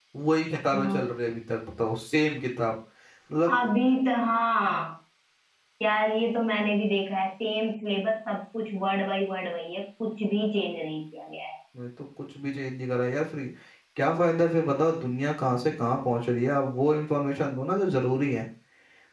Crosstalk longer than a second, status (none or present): none